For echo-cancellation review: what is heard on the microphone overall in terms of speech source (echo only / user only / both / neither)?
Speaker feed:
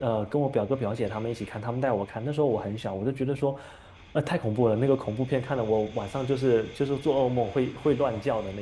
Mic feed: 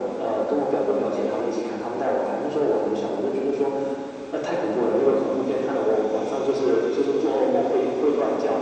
echo only